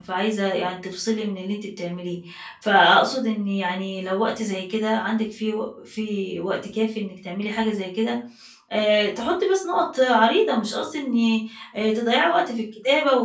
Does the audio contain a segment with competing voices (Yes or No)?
No